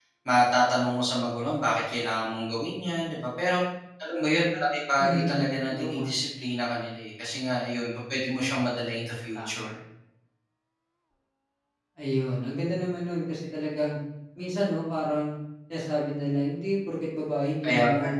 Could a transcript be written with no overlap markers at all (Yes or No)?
No